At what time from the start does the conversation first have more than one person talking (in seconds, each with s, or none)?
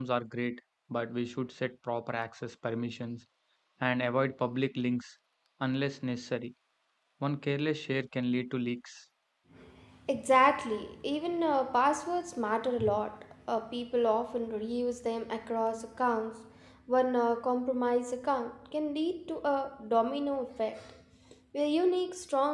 none